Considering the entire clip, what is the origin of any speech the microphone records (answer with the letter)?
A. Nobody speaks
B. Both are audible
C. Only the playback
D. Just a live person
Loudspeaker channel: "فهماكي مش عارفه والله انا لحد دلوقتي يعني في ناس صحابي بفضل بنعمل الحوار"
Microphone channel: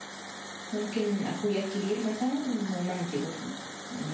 D